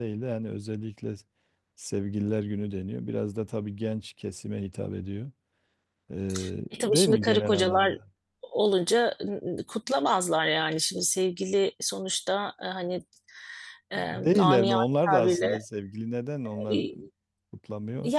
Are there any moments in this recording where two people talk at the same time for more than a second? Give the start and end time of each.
6.7-7.9, 13.9-15.6

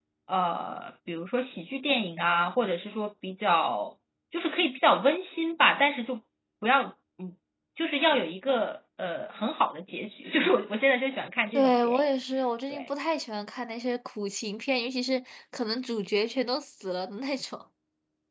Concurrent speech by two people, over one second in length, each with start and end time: none

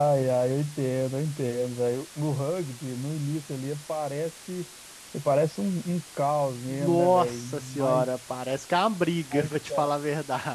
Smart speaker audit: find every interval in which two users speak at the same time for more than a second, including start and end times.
6.7-8.1

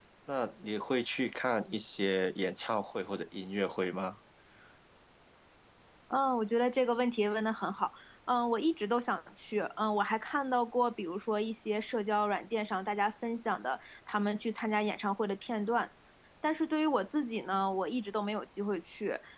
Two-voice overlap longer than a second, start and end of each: none

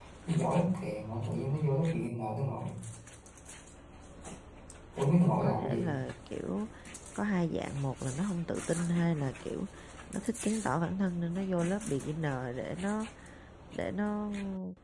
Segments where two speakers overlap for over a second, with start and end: none

